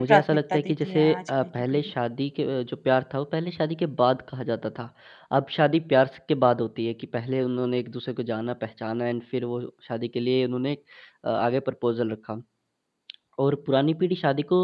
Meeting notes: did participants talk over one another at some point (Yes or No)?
Yes